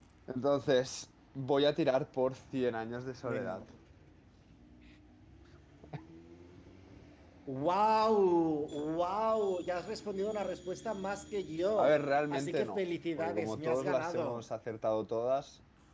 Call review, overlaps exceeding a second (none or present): present